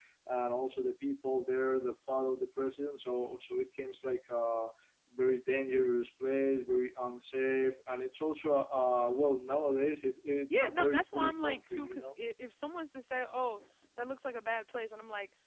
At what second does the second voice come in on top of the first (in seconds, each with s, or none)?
10.5 s